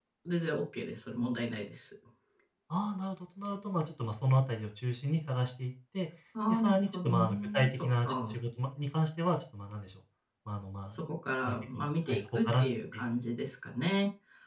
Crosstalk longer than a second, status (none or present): present